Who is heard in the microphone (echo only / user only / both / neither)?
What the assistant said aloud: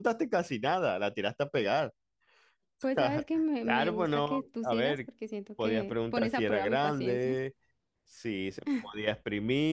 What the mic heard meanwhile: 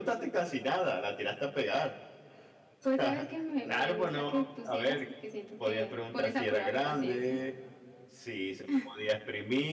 echo only